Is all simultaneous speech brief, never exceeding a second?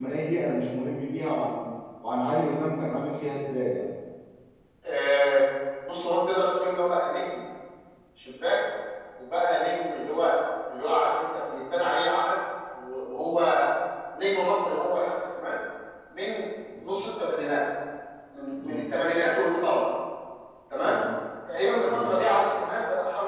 Yes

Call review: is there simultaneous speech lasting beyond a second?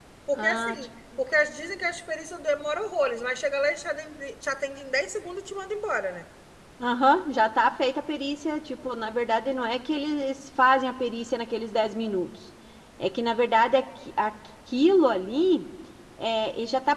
No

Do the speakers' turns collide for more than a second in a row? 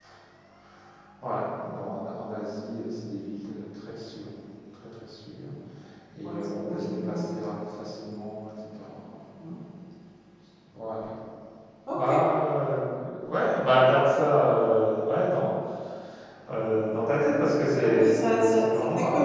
Yes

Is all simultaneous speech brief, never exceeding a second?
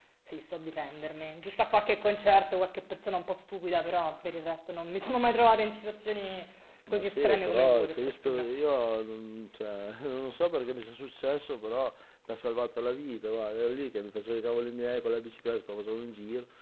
No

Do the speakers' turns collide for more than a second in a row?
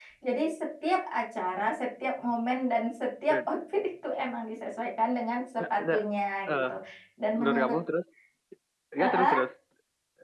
No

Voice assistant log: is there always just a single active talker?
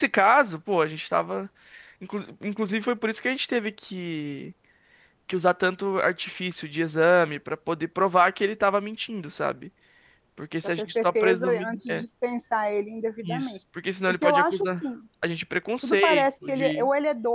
No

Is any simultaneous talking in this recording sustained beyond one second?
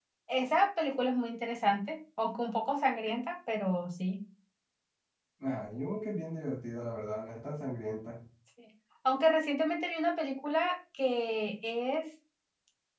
No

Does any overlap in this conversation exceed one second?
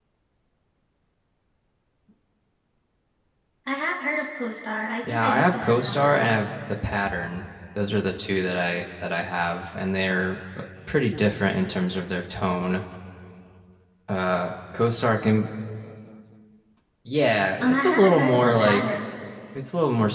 Yes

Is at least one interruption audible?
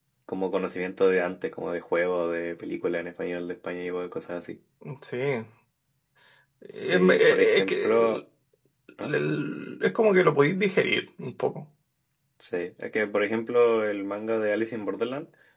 Yes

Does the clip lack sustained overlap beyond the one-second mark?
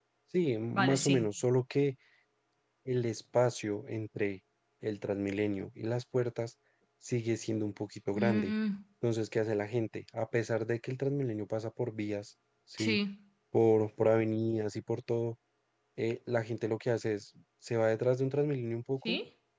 Yes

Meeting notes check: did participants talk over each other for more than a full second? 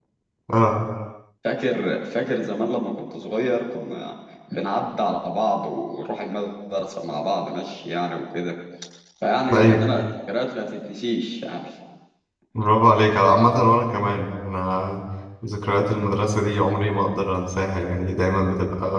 No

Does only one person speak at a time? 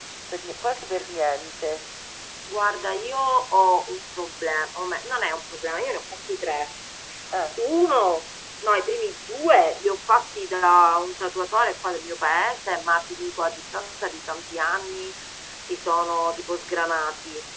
Yes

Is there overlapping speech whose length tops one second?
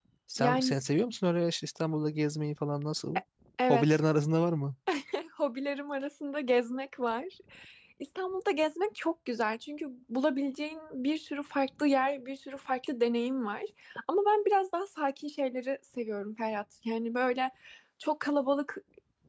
No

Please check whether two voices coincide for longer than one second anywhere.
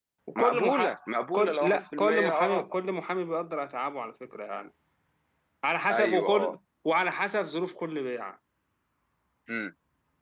Yes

